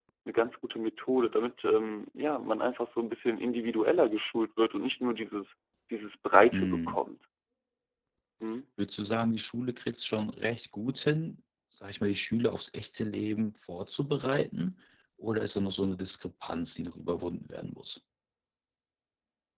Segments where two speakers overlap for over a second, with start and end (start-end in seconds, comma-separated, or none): none